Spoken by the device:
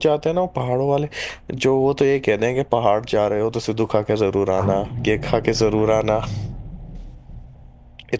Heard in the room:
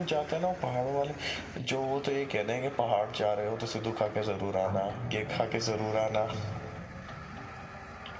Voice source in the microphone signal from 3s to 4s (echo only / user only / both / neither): echo only